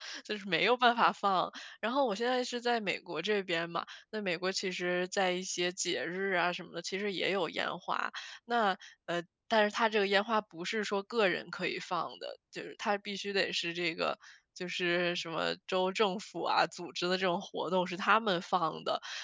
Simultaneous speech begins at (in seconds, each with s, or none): none